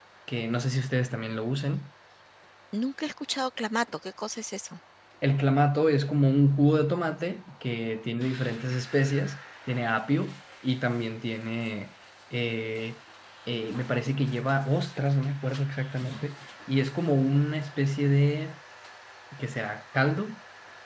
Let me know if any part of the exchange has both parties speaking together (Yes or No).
No